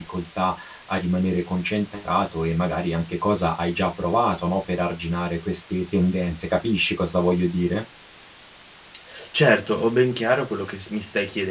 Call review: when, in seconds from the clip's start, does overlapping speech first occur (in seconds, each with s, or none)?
none